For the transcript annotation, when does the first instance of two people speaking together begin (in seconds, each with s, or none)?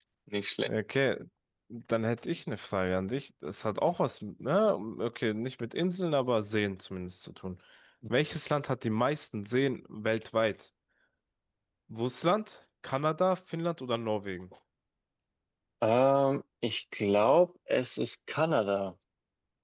none